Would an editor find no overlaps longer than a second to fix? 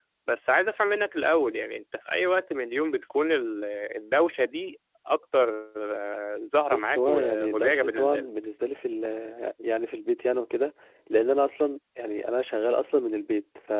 No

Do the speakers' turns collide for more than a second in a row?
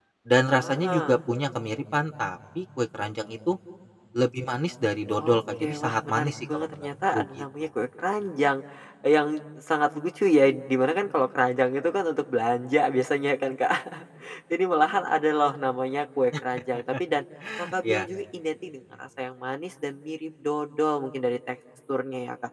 Yes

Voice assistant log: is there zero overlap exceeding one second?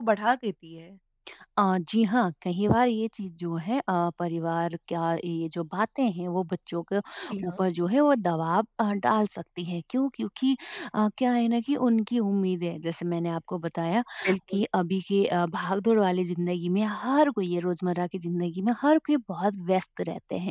Yes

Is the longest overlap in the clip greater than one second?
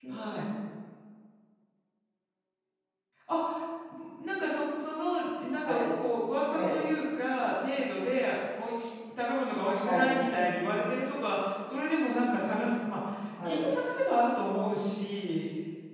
No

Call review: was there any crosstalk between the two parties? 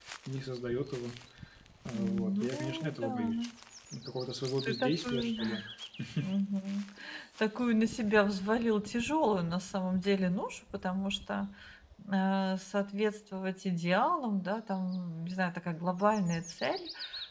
Yes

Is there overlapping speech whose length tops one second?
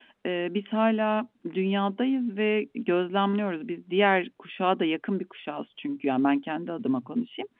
No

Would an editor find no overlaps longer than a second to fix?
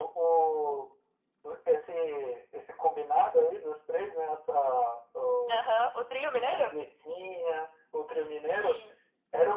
Yes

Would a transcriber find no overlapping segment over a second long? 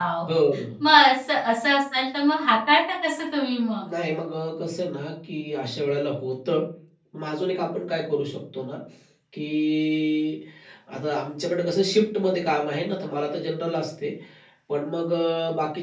Yes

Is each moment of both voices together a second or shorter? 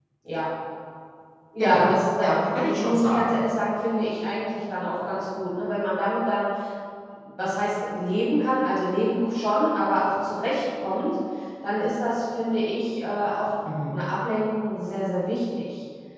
No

